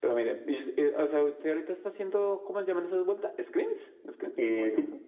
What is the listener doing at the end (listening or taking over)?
taking over